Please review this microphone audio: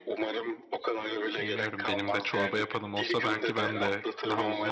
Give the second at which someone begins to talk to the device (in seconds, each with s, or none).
1.4 s